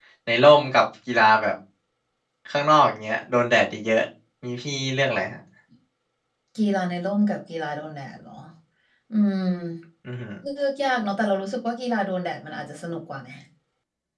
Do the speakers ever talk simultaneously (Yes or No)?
No